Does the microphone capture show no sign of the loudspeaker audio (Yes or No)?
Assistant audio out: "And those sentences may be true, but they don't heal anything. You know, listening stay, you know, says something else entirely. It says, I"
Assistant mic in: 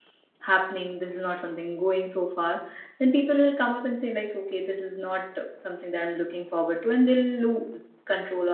Yes